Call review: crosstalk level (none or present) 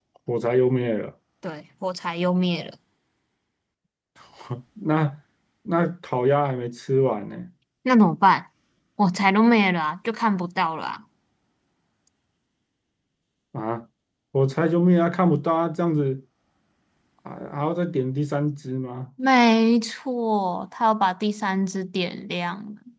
none